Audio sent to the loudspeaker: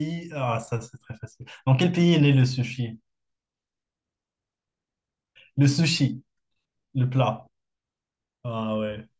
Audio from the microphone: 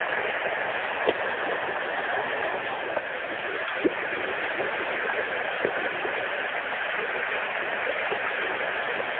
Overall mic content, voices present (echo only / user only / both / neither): neither